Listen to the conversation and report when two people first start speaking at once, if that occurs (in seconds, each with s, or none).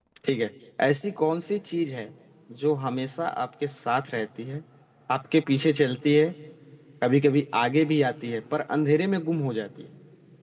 none